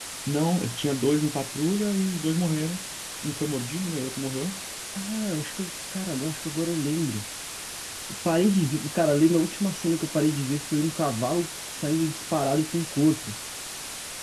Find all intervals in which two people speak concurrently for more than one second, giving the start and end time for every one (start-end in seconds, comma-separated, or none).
none